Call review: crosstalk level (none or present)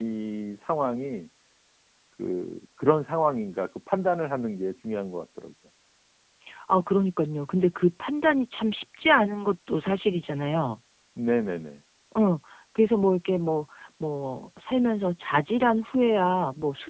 none